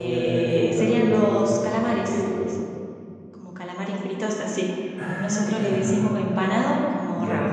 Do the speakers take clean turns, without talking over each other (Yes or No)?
No